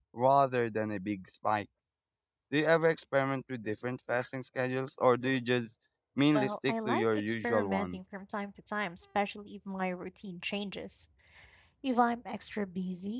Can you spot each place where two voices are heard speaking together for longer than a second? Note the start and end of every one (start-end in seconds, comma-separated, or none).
6.3-8.0